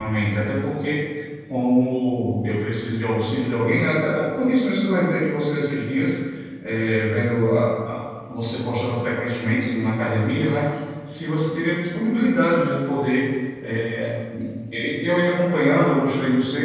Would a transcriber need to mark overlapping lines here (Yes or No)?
No